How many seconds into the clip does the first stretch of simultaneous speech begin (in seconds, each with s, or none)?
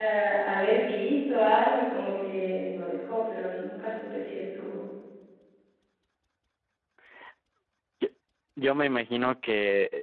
none